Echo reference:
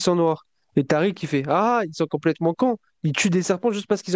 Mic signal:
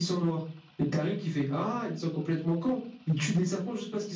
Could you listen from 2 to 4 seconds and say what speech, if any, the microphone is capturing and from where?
echo only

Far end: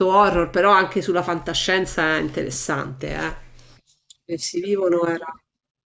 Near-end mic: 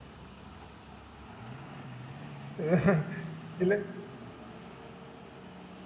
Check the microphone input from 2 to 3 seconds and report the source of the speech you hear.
user only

